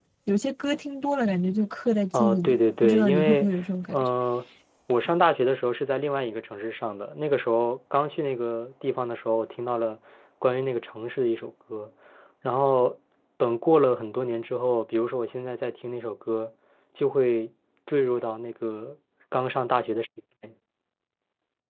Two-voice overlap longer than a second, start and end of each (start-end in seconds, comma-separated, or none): 2.1-3.5